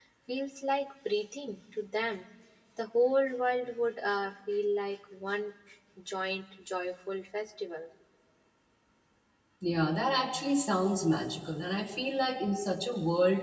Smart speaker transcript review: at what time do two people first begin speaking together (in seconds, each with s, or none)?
none